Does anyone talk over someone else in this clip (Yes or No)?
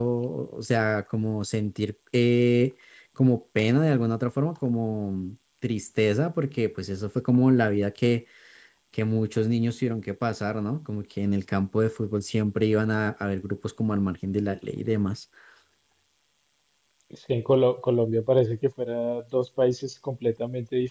No